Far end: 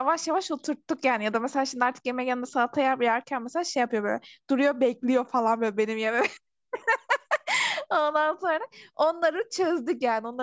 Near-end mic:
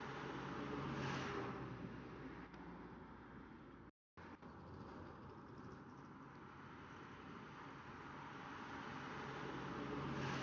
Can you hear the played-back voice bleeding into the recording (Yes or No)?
No